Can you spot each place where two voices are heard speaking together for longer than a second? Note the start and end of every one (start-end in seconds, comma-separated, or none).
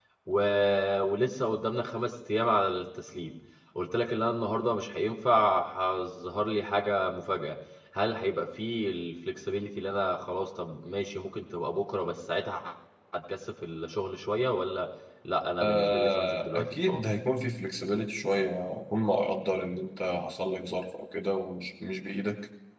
15.6-17.0